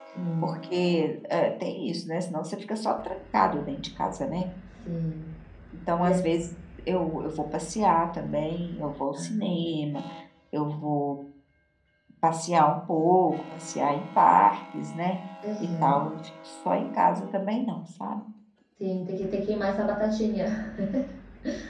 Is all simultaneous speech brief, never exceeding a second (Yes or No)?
Yes